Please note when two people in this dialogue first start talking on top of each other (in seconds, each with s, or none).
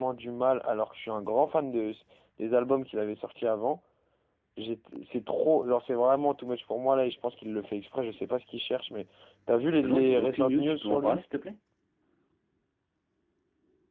9.8 s